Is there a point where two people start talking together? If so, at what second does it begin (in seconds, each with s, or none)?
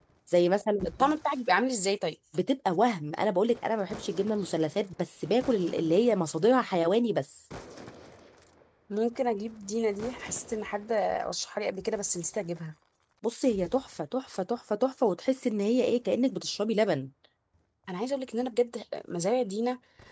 none